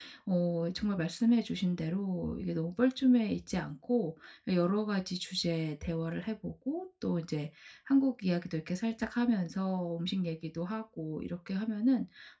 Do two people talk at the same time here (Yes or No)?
No